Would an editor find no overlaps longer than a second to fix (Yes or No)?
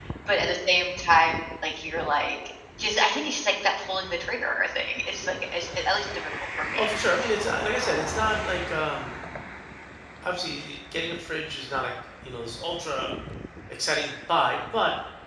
Yes